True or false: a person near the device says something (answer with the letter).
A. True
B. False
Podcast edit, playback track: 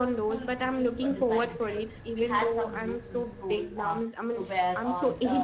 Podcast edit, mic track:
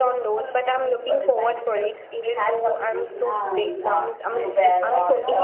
A